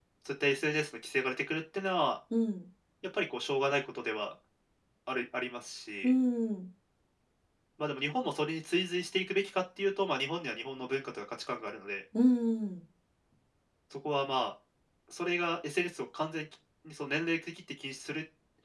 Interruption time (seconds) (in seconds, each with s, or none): none